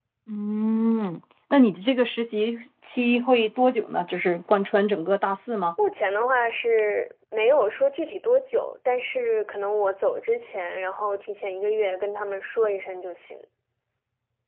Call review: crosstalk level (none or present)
none